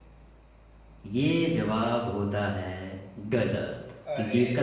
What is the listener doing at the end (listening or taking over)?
listening